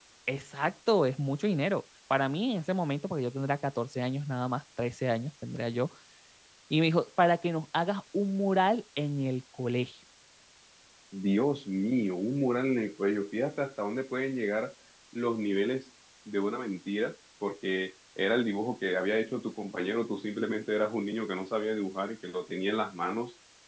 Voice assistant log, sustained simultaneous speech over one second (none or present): none